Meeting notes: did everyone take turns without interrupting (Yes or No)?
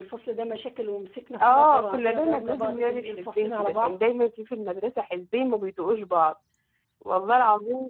No